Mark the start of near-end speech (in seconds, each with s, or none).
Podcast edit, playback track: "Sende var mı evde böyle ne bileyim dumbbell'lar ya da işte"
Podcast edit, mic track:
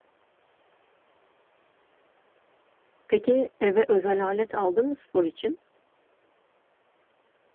3.1 s